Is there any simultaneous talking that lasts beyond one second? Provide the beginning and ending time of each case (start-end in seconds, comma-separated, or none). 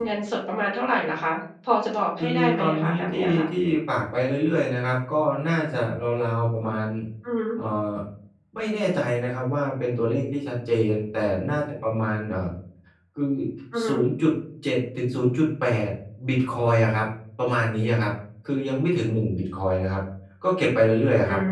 2.2-3.5